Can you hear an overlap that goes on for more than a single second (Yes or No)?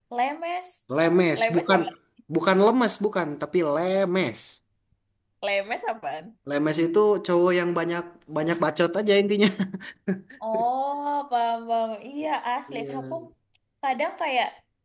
No